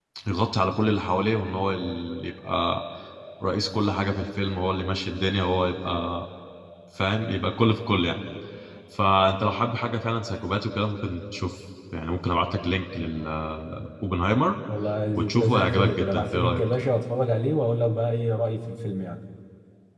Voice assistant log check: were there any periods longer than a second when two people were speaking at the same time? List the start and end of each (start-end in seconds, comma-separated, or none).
15.2-16.6